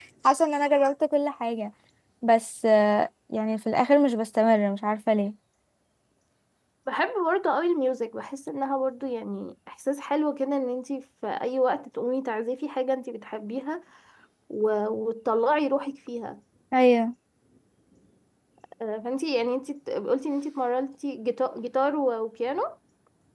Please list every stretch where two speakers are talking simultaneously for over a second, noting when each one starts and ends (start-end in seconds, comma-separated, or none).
none